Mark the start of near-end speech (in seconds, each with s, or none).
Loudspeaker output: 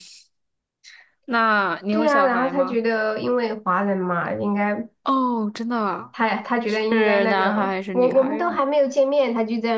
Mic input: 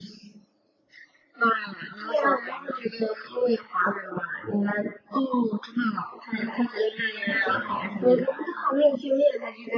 7.3 s